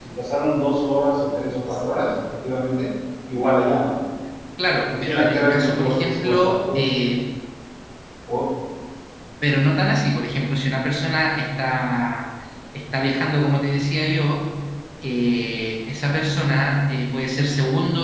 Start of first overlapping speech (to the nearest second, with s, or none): 5 s